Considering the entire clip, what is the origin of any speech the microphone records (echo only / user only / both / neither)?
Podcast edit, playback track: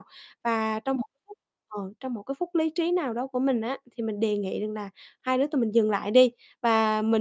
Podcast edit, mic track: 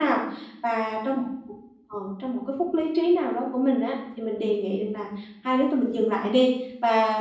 echo only